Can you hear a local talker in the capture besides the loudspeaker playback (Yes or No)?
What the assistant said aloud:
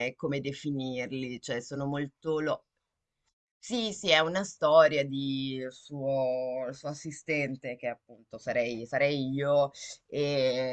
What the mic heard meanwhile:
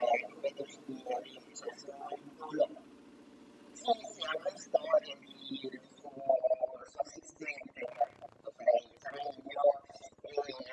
No